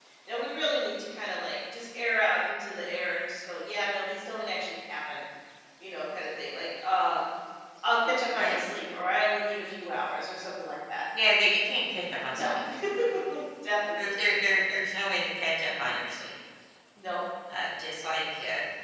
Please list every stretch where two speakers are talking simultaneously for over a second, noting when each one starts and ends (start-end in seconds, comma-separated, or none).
none